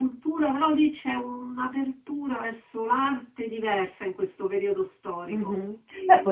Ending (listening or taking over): taking over